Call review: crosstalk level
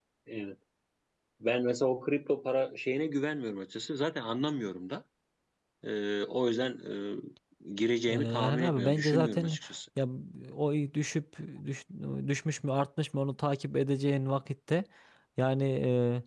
present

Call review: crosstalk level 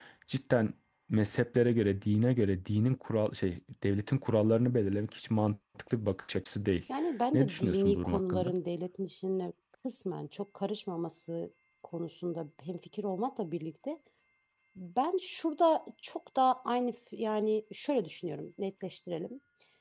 present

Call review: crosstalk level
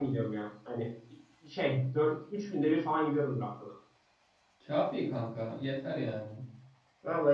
none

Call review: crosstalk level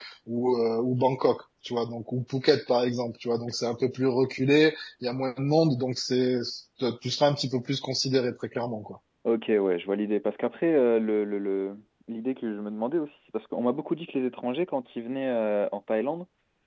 none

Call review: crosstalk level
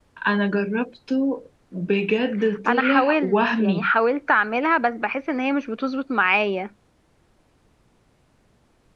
present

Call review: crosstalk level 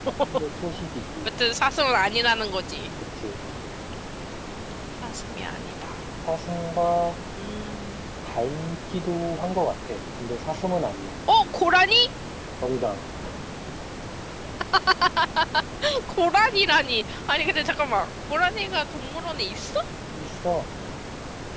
none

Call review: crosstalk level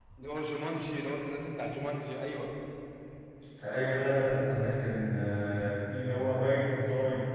none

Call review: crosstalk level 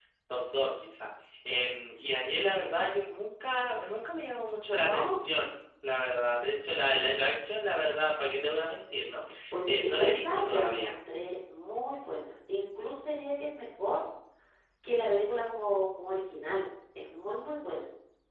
present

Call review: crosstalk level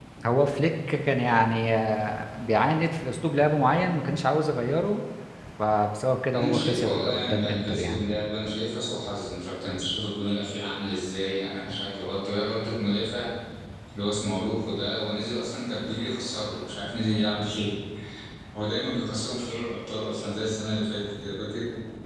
present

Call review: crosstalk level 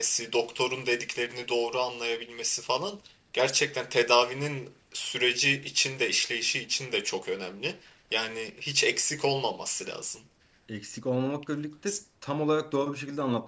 none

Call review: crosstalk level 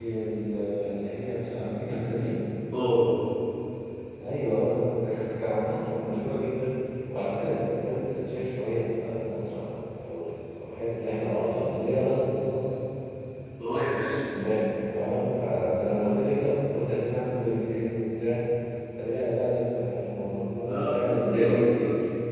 present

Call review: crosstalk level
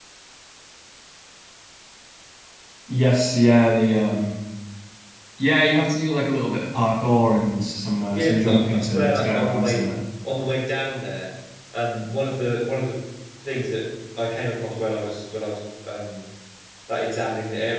present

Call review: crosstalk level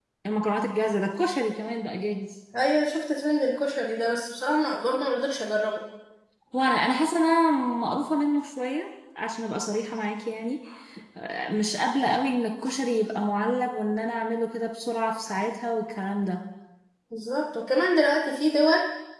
none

